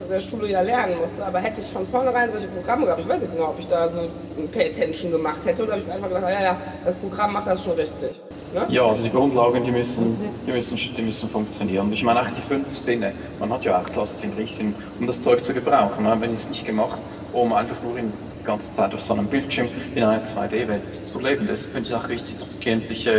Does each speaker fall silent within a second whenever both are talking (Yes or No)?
Yes